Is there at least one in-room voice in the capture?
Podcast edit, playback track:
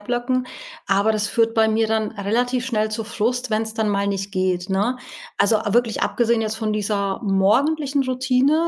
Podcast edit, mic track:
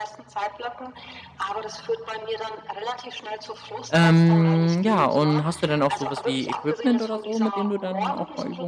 Yes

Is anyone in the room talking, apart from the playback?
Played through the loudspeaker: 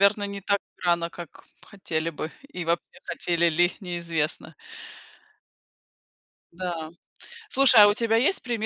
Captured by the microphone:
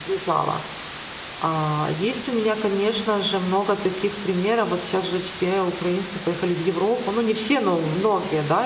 Yes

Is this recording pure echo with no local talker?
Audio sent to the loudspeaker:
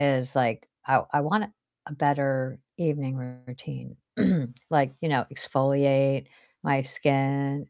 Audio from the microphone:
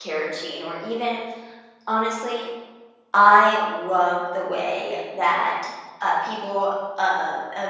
No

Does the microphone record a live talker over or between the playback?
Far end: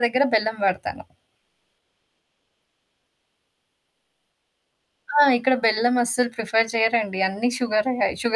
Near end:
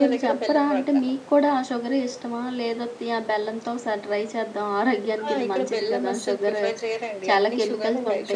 Yes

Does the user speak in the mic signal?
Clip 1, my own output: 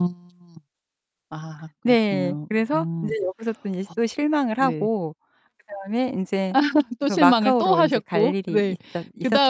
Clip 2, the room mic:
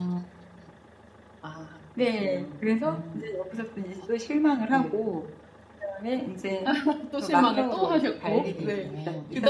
Yes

